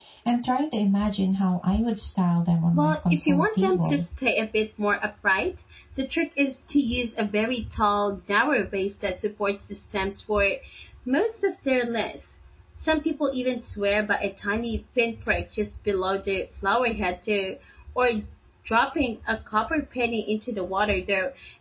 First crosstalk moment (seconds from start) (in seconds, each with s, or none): 2.7 s